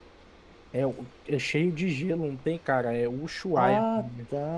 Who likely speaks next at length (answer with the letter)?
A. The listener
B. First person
A